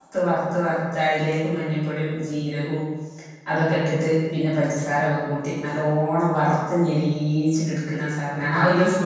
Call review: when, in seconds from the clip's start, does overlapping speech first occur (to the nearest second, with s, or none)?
none